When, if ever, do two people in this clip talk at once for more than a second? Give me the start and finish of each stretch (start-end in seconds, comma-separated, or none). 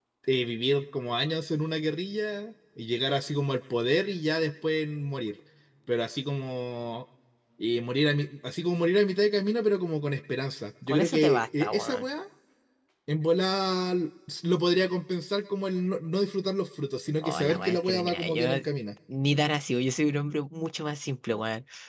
10.9-12.1, 17.2-18.7